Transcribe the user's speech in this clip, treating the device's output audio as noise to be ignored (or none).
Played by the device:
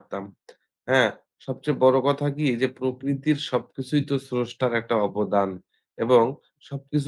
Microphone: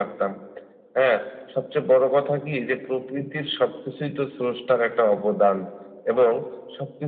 none